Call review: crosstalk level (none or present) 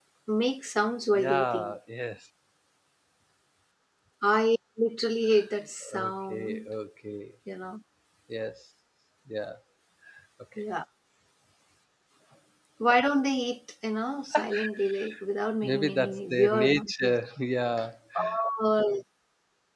present